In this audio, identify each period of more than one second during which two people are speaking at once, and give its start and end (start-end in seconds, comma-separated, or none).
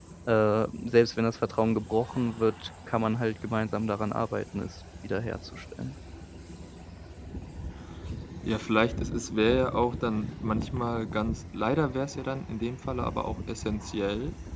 none